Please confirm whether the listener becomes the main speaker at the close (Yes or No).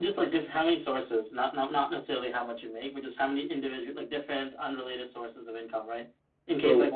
No